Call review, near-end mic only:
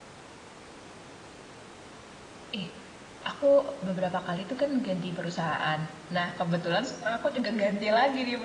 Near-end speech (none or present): present